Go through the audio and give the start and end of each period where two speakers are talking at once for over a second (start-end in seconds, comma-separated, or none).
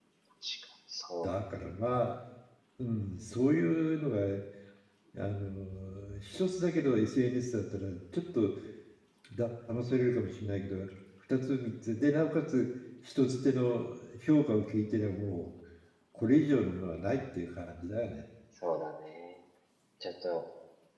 none